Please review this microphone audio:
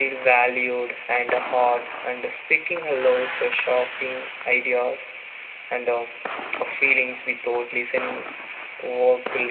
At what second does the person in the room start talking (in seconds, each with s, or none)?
none